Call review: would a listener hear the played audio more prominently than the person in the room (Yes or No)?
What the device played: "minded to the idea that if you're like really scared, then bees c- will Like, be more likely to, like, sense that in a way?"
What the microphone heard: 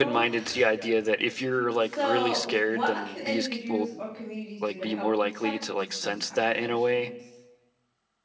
Yes